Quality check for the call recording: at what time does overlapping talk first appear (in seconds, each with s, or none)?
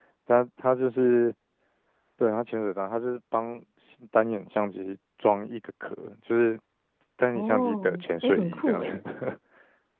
7.3 s